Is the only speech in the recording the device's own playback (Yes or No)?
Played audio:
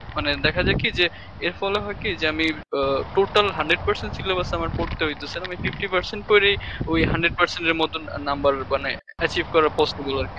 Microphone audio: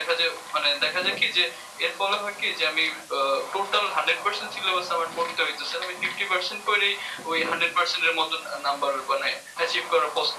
Yes